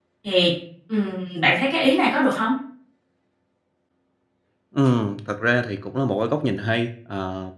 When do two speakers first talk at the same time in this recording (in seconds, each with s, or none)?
none